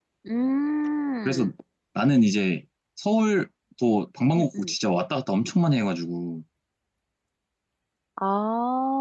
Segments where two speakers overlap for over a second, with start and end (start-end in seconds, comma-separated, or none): none